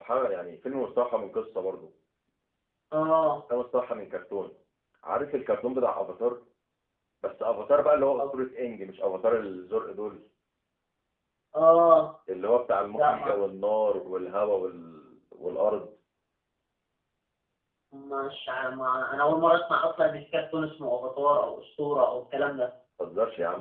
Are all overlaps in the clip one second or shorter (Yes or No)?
Yes